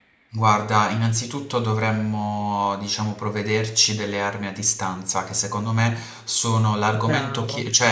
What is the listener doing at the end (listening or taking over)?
listening